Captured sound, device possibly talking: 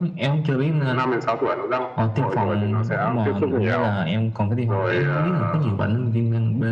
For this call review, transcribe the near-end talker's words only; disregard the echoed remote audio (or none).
none